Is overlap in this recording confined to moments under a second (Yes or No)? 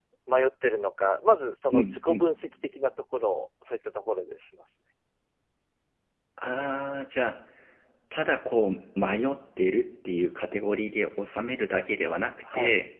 Yes